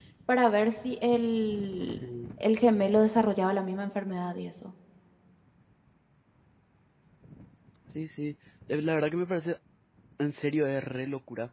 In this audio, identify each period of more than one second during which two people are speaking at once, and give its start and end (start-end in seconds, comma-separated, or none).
none